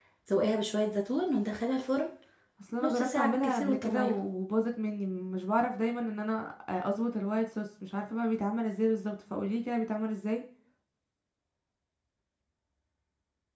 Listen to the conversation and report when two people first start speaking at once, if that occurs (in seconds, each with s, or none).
2.8 s